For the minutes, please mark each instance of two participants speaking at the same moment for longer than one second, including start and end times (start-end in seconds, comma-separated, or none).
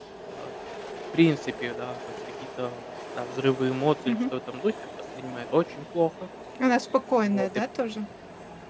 none